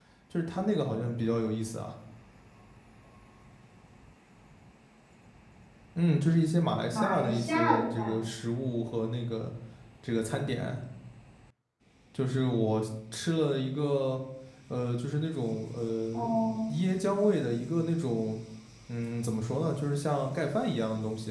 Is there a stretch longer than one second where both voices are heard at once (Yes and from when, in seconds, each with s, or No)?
Yes, from 6.9 s